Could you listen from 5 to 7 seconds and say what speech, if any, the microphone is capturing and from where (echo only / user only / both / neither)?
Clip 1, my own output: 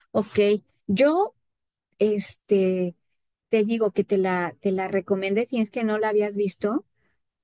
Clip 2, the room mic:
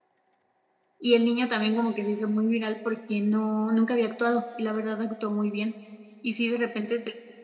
user only